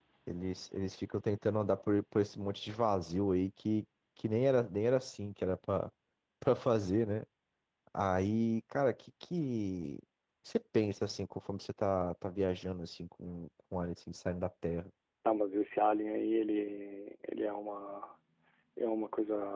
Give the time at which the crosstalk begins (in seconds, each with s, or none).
none